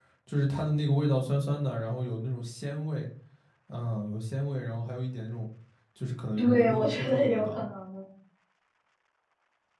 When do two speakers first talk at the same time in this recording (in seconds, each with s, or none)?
6.4 s